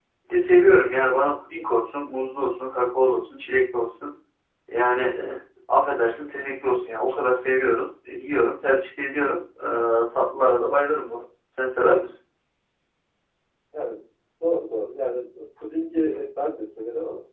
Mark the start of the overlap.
none

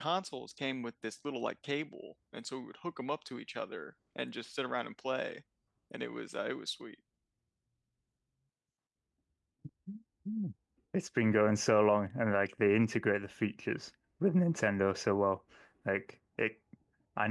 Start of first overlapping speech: none

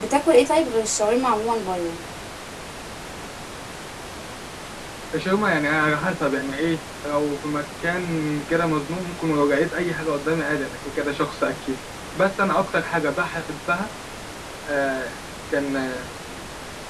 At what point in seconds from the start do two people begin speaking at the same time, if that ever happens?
none

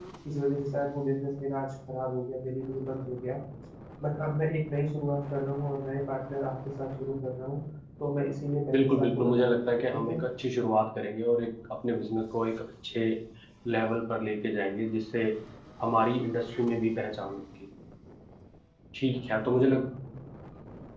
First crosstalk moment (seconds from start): 8.7 s

